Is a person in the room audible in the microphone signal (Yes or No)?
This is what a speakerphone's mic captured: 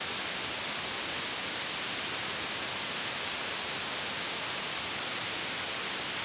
No